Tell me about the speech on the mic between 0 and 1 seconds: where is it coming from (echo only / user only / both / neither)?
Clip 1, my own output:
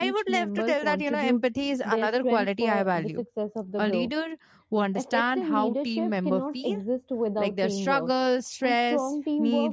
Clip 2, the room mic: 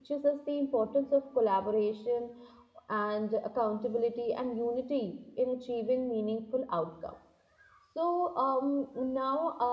user only